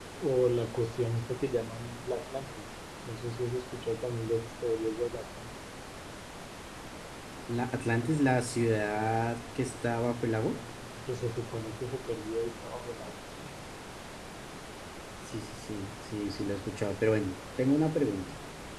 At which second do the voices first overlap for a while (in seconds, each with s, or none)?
none